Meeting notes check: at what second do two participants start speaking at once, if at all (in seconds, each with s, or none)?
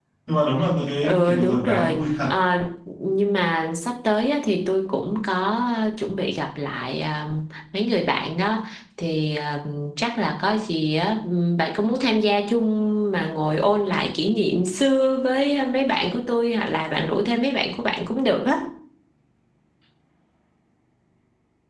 1.0 s